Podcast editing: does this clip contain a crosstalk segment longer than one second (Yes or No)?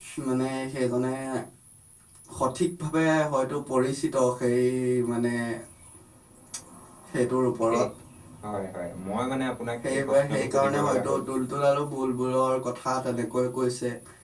Yes